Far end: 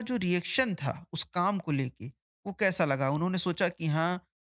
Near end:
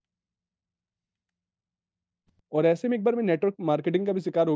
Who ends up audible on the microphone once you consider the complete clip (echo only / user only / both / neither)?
user only